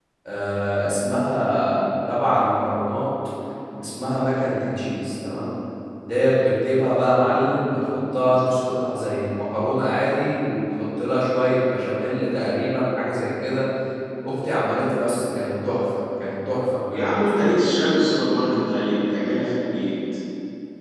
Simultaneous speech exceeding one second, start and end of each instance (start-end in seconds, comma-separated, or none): none